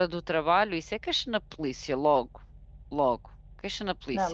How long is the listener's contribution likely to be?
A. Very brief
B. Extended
B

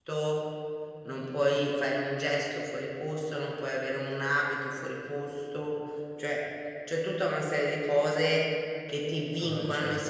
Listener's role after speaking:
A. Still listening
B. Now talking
A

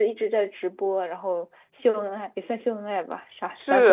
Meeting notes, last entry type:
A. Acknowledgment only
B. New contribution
B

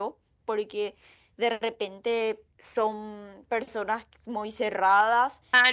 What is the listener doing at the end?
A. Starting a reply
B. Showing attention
A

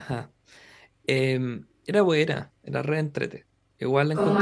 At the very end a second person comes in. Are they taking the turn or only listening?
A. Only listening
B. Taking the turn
A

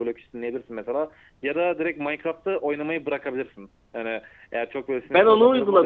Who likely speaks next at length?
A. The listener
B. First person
A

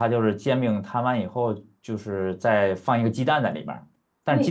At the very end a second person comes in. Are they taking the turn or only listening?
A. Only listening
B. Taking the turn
B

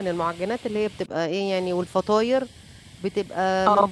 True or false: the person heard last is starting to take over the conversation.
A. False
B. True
A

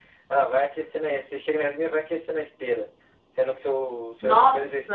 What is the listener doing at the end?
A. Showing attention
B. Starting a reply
A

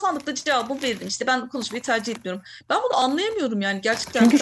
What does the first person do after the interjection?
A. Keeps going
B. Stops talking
B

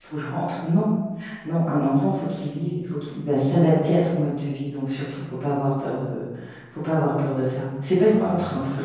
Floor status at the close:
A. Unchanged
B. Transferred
B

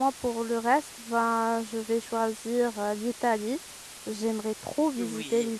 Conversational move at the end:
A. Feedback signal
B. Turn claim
A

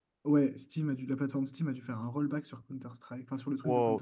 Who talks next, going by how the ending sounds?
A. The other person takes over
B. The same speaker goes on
A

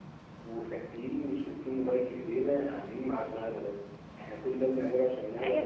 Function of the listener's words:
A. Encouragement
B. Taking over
B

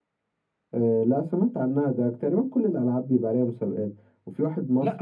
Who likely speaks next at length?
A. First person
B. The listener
A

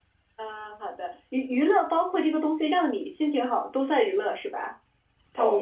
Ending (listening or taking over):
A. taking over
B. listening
A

